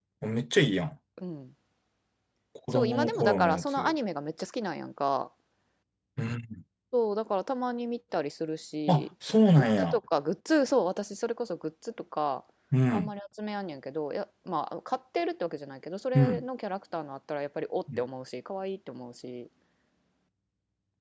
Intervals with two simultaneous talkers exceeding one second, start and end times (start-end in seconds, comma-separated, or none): 2.7-3.9